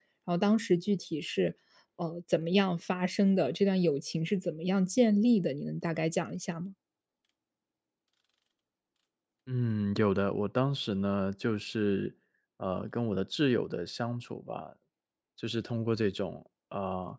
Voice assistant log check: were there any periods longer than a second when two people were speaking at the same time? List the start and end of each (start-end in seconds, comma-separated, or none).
none